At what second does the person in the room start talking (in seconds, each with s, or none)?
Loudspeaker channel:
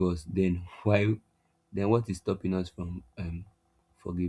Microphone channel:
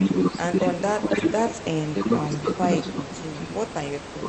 0.4 s